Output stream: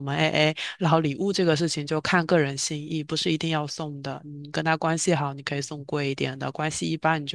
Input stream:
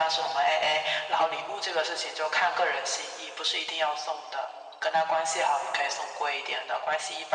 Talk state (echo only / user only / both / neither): echo only